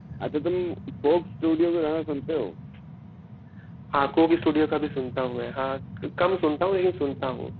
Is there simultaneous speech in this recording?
No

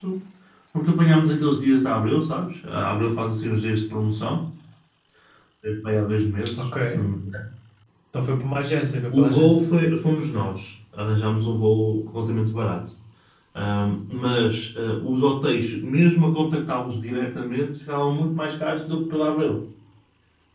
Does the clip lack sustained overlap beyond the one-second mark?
Yes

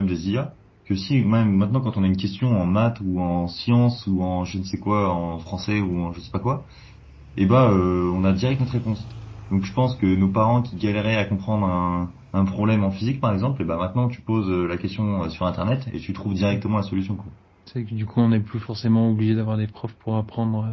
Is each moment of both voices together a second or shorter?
Yes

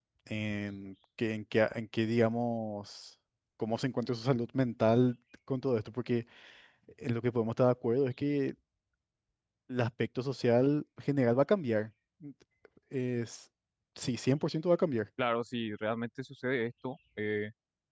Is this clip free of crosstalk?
Yes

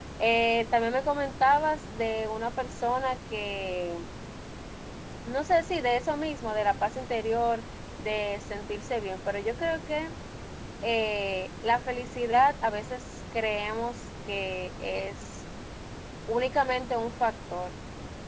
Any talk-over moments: No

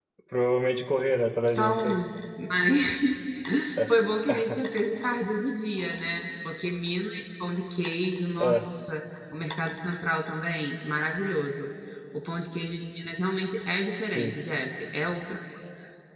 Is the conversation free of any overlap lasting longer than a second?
Yes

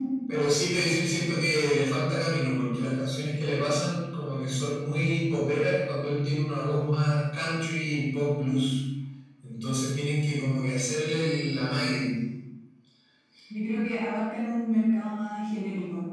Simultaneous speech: No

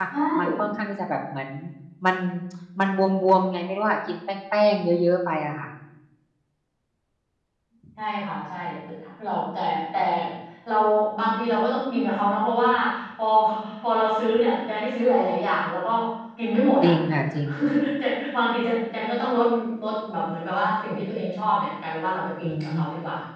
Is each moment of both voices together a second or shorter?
Yes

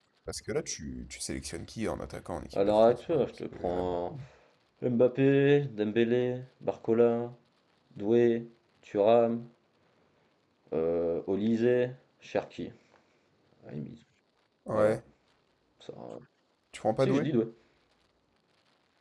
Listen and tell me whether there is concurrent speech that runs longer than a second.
Yes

